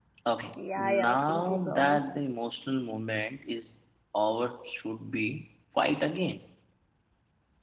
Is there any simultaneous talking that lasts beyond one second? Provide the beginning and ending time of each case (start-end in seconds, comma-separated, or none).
0.6-2.1